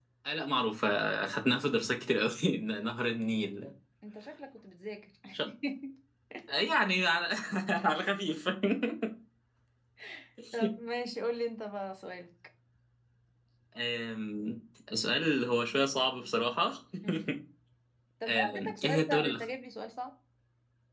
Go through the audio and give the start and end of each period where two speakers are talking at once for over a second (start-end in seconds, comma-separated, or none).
18.3-19.5